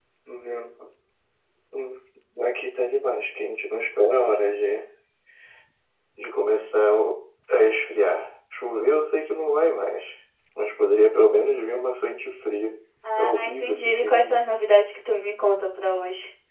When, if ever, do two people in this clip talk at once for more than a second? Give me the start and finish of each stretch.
13.2-14.4

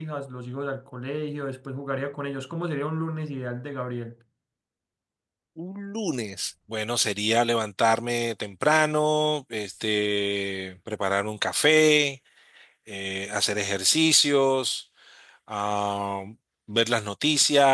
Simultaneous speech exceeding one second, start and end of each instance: none

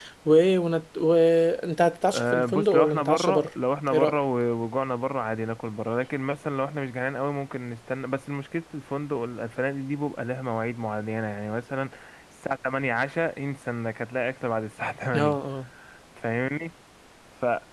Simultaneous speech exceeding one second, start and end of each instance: 2.1-3.5

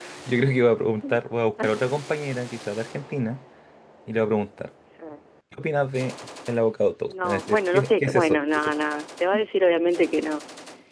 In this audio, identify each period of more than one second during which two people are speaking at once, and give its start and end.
7.1-8.7

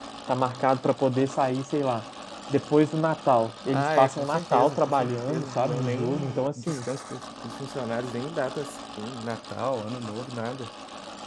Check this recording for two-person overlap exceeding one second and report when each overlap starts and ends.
3.7-6.8

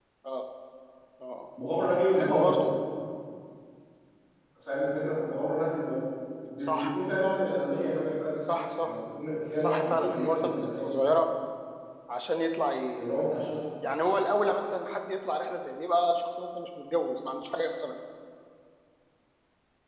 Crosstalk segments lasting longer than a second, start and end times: 9.6-10.9

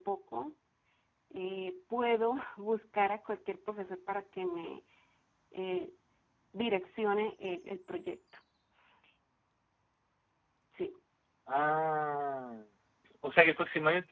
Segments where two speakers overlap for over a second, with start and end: none

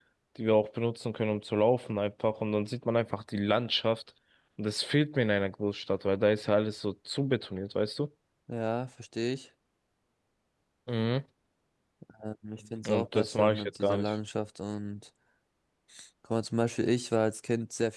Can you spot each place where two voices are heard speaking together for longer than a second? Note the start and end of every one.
12.9-14.1

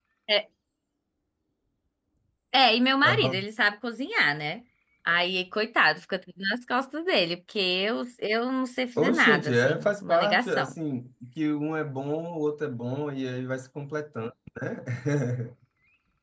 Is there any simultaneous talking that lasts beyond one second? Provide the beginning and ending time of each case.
9.0-10.7

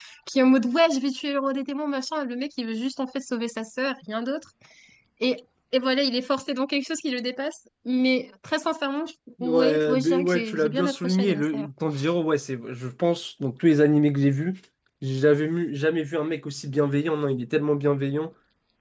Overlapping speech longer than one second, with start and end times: 9.4-11.7

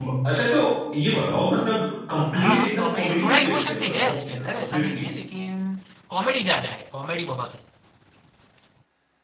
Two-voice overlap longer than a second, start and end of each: 2.4-5.0

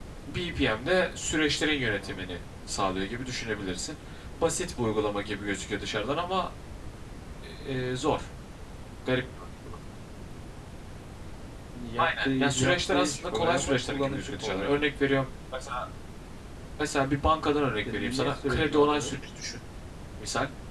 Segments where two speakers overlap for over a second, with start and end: 12.0-14.8, 17.9-19.2

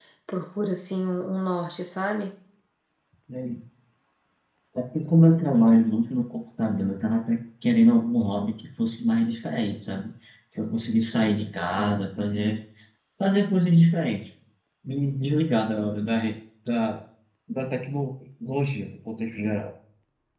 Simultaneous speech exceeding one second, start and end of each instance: none

